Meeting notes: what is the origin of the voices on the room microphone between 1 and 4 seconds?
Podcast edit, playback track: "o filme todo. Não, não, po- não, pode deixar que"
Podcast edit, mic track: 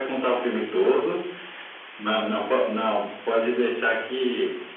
echo only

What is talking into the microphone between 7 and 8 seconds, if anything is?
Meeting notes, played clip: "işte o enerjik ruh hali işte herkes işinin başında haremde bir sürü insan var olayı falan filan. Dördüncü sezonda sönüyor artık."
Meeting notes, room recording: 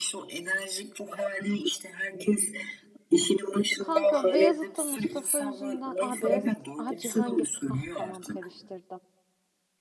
both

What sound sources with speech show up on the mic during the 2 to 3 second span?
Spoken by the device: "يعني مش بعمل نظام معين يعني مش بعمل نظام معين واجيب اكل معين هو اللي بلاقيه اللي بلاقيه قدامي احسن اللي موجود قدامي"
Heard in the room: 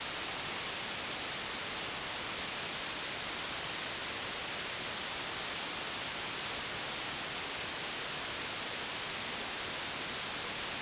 neither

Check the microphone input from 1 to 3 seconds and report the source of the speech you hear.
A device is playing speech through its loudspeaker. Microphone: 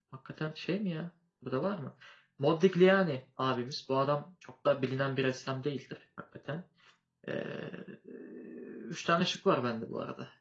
user only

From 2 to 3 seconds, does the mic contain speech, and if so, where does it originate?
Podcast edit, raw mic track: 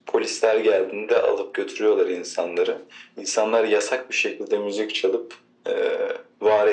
echo only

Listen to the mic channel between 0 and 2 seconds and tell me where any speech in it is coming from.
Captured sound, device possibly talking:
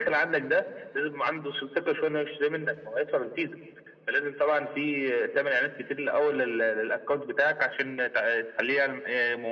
echo only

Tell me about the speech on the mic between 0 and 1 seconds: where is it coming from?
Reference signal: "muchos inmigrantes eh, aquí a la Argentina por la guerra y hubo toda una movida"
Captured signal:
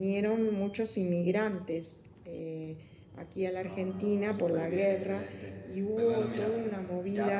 echo only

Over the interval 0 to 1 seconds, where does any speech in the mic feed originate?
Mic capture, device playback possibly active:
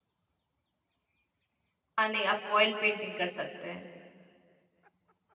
neither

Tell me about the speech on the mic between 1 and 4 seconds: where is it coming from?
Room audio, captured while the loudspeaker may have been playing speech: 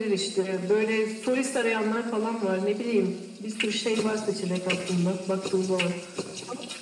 echo only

